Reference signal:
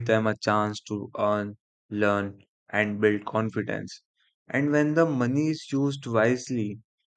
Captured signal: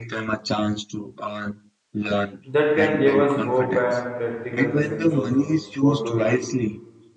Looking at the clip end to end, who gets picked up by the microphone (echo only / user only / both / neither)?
both